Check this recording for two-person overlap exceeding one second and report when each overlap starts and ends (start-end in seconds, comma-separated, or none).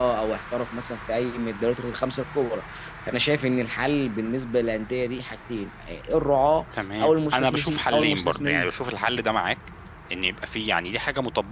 7.0-8.7